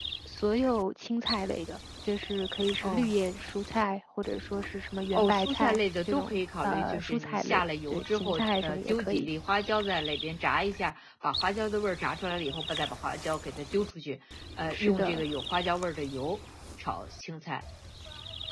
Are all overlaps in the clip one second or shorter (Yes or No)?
No